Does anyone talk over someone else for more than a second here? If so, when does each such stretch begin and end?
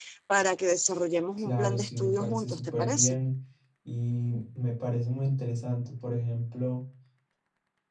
1.4-3.2

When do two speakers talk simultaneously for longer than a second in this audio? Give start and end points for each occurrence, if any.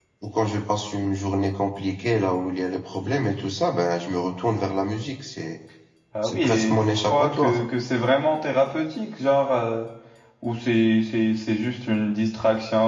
6.2-7.6

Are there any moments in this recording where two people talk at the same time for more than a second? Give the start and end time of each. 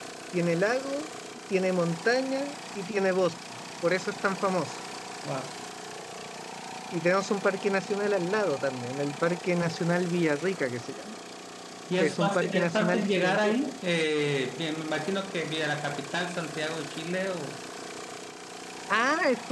12.0-13.5

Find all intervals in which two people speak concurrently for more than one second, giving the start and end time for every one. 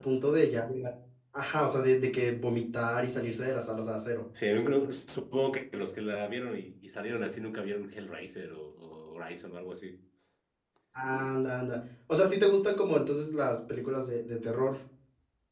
none

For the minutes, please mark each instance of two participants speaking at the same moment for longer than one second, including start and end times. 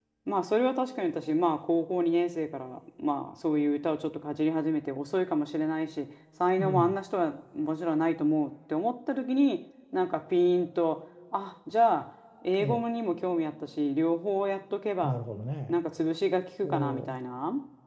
none

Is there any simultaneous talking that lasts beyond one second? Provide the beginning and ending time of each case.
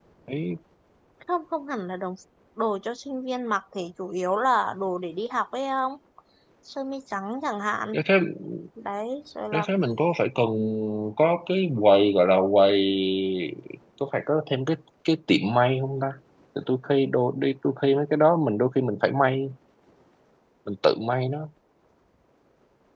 none

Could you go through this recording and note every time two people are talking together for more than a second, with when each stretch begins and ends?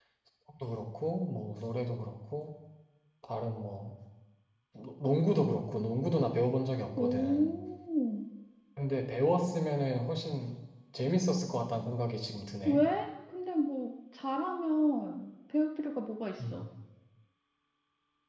none

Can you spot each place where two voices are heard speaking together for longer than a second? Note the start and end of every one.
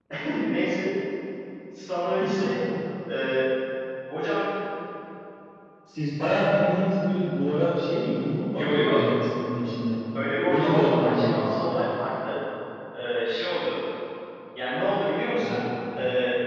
10.4-11.7

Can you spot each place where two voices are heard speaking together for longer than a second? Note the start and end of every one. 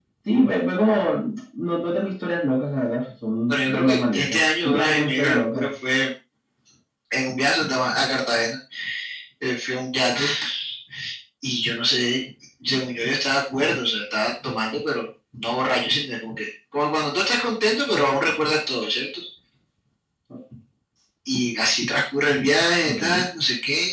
3.5-5.7

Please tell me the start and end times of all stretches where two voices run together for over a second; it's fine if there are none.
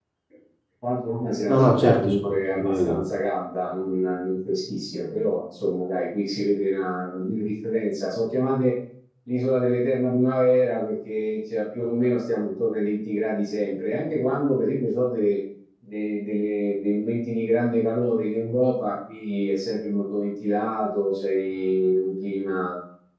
1.5-3.0

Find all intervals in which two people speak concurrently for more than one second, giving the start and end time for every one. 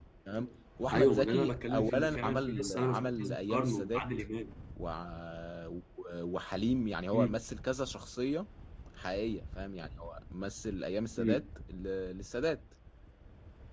0.9-4.0

